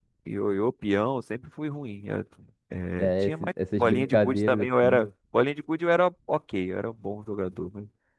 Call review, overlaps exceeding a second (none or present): present